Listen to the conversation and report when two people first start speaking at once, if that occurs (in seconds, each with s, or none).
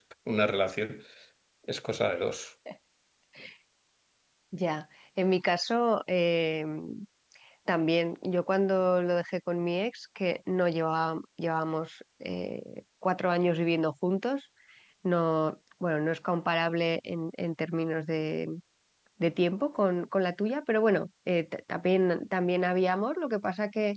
none